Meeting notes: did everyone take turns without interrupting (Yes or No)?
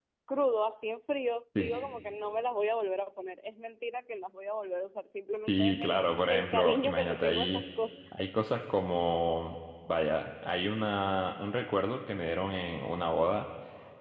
No